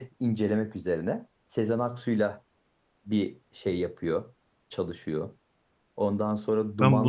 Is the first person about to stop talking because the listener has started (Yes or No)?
Yes